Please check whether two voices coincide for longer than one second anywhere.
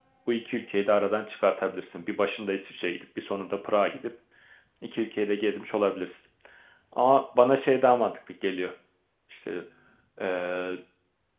No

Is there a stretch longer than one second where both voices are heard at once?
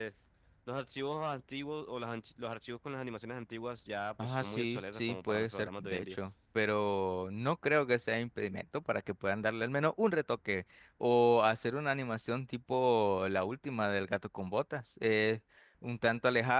Yes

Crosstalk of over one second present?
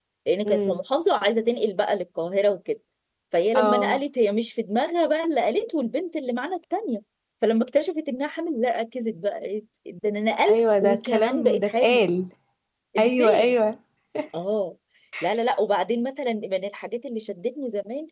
Yes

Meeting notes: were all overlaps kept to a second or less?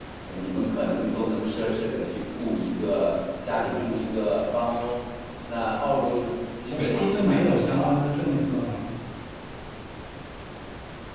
No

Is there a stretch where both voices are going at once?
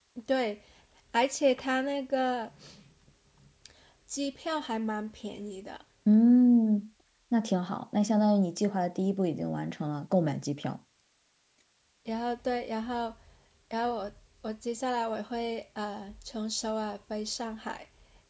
No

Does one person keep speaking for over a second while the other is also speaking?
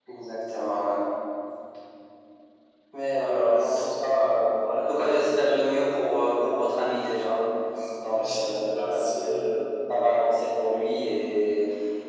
Yes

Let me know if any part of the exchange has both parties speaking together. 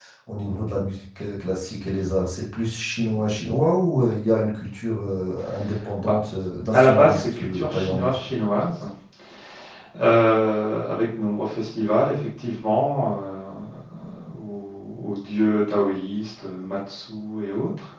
Yes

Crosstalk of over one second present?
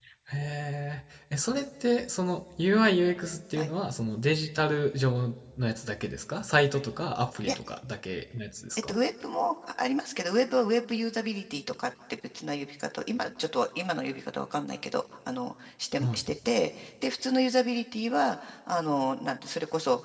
No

